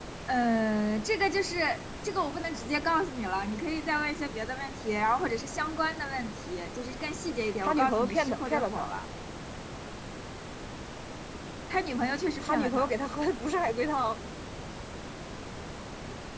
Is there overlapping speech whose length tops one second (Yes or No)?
Yes